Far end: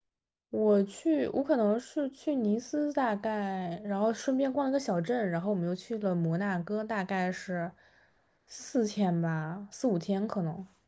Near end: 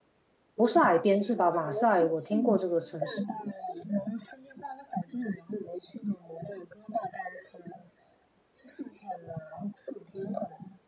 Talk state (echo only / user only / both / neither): both